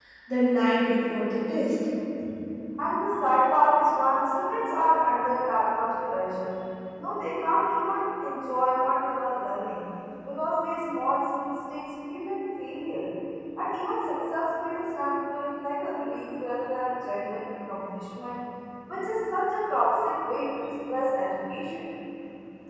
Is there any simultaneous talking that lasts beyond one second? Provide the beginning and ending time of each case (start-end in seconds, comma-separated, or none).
none